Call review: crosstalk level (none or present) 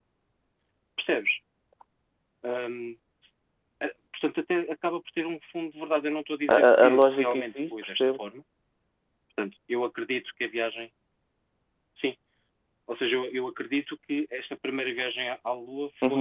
present